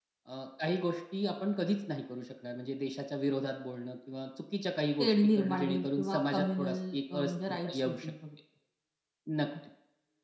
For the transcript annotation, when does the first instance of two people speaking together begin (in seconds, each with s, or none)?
5.0 s